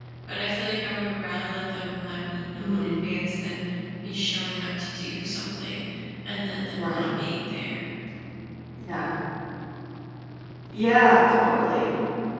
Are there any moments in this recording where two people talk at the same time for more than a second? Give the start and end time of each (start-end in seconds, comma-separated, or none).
none